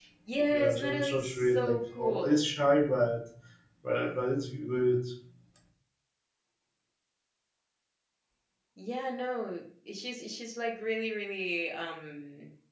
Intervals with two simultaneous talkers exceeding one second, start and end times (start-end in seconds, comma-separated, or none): 0.5-2.4